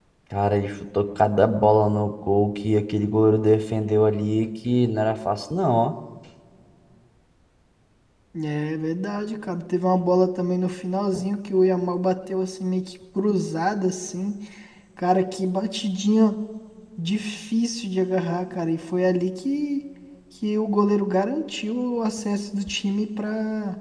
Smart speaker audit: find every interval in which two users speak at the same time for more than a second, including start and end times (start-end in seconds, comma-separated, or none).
none